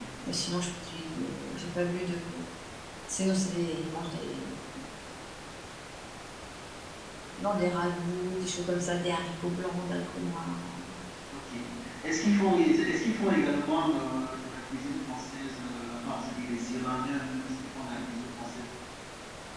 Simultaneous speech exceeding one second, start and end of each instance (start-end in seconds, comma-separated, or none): none